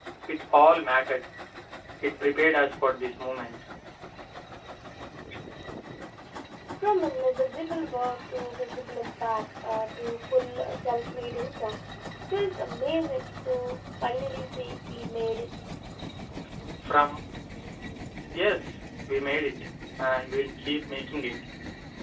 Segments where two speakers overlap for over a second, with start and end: none

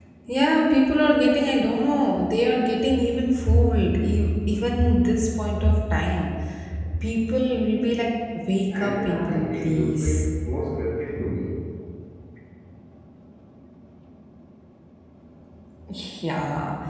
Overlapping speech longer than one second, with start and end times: 8.7-10.3

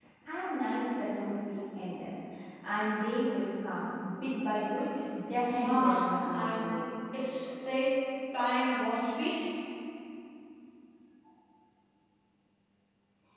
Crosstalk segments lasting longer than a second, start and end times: 5.5-6.8

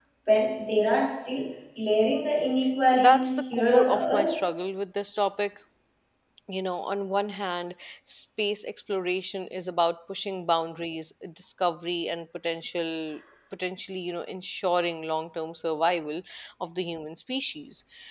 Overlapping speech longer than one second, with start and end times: 2.9-4.4

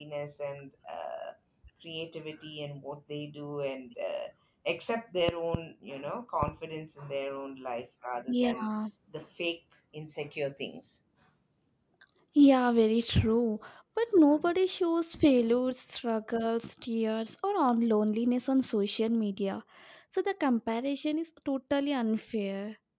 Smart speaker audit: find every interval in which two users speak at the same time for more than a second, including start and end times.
none

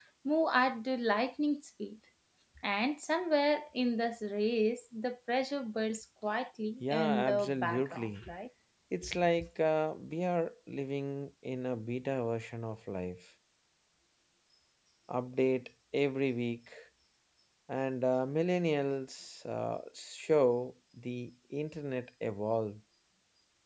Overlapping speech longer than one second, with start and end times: 6.8-8.2

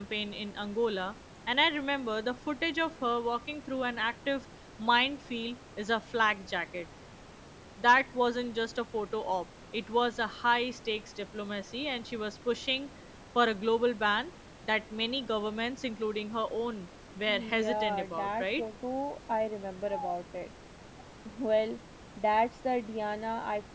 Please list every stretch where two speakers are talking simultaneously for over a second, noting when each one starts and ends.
17.3-18.6

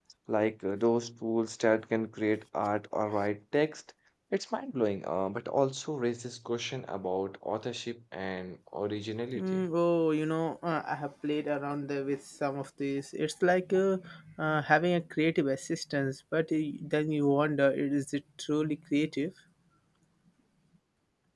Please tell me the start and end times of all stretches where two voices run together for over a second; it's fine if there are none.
none

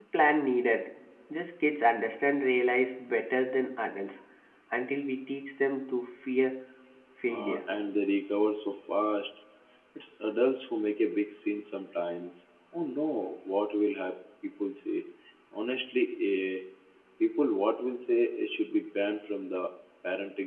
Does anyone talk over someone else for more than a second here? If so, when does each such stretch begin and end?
none

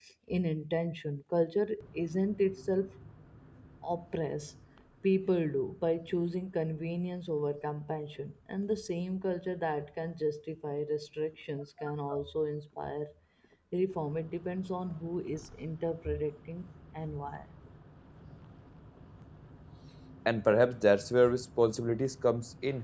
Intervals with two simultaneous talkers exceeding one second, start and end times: none

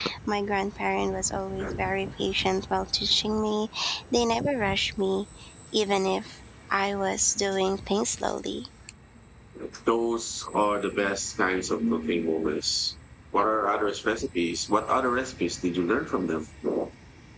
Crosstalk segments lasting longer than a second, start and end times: none

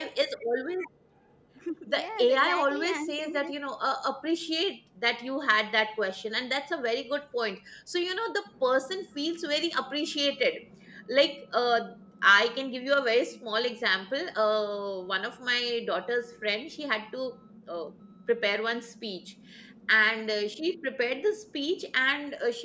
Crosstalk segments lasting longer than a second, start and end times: 1.9-3.5

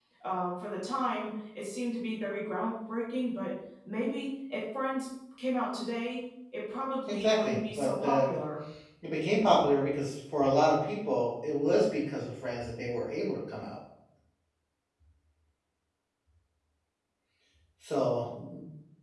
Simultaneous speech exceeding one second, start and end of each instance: 7.1-8.3

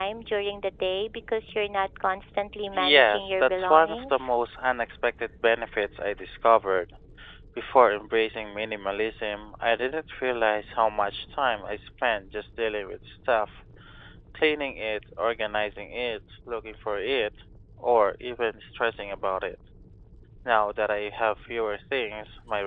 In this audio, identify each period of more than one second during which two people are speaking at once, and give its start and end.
2.7-4.2

